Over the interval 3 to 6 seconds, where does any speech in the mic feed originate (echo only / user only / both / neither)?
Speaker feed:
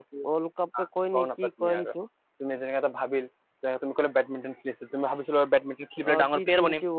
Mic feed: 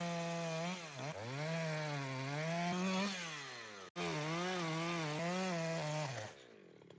neither